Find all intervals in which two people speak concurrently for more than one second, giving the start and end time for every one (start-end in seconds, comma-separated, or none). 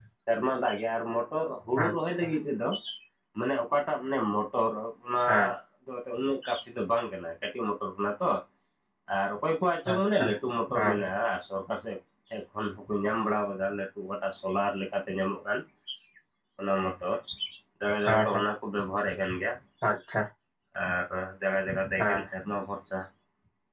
none